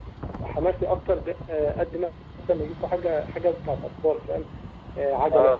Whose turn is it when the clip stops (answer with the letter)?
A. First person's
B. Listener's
A